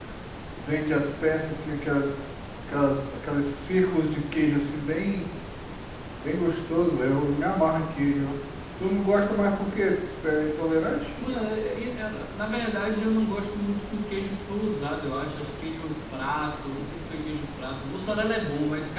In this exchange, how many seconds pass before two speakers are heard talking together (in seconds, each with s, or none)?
none